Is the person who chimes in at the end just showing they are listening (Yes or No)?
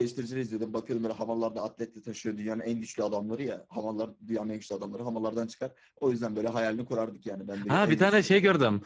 No